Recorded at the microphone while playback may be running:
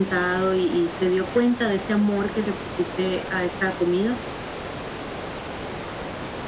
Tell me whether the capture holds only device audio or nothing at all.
Yes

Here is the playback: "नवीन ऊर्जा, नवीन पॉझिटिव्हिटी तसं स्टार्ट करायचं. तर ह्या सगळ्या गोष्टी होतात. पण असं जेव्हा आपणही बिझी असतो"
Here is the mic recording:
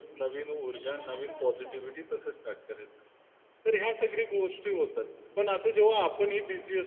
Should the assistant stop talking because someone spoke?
Yes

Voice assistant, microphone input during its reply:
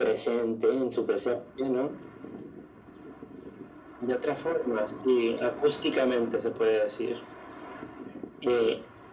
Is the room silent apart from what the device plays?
Yes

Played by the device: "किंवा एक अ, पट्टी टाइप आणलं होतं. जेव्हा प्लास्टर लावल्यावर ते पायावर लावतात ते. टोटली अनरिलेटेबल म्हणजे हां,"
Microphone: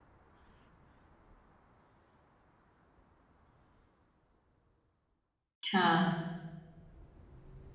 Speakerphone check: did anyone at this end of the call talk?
Yes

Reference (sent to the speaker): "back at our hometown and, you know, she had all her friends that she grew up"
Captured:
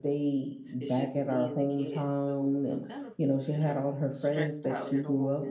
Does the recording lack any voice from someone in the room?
No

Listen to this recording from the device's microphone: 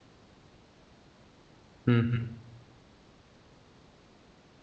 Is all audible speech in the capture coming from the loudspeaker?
No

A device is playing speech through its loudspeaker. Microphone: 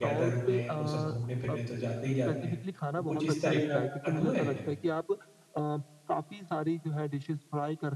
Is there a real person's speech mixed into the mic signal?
Yes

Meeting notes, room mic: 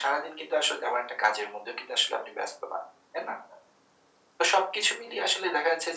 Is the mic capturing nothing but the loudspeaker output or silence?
Yes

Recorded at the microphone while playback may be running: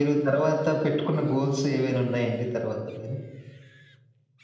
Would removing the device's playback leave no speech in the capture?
Yes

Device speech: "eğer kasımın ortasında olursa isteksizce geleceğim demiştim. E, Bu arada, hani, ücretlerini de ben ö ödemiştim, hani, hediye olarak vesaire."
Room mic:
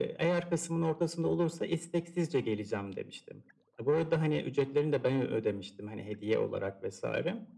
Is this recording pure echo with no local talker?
Yes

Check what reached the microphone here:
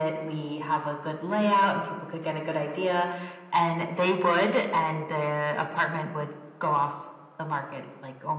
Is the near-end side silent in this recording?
Yes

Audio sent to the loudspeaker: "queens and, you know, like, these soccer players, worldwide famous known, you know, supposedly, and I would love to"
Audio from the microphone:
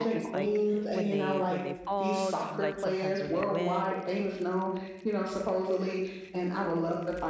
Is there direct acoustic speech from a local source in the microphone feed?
Yes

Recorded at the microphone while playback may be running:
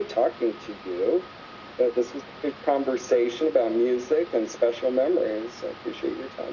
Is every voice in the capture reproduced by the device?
Yes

